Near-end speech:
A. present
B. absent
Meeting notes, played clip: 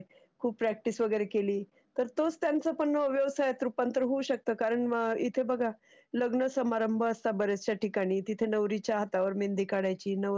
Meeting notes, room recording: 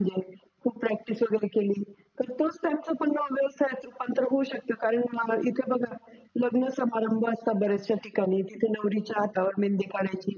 B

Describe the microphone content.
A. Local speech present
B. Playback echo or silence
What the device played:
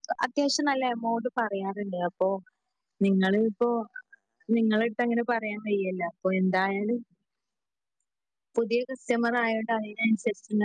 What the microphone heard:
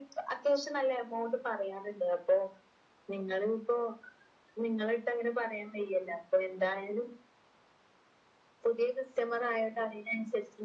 B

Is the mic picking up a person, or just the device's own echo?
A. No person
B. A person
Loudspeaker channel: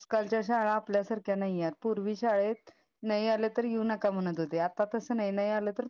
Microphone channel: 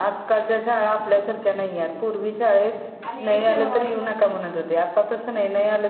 B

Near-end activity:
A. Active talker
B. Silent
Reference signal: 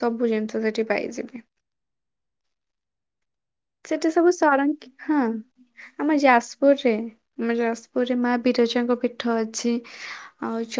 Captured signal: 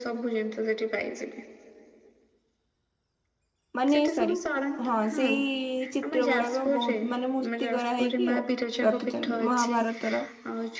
A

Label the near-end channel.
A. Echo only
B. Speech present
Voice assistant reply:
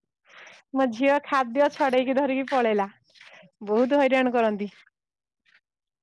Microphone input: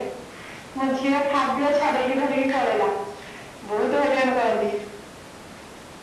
A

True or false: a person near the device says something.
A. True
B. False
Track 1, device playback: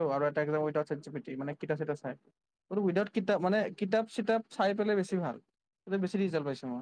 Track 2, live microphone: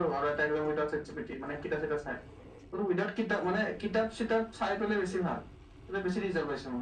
B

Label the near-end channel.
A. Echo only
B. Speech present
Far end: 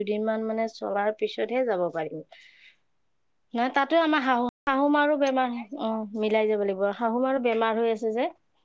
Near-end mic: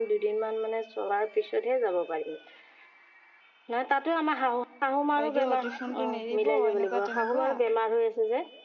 B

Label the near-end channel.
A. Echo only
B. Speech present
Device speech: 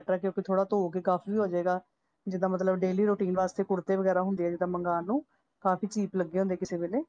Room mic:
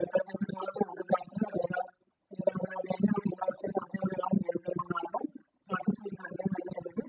A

